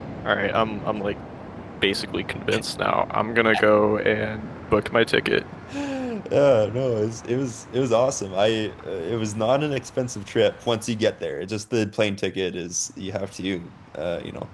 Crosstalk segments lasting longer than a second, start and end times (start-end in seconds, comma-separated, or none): none